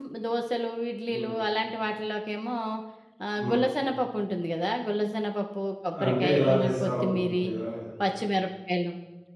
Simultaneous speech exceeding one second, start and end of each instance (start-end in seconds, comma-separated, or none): 6.0-7.5